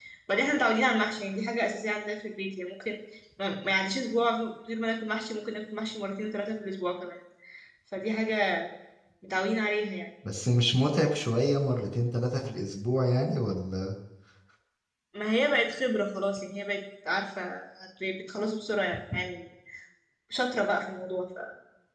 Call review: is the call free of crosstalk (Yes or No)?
Yes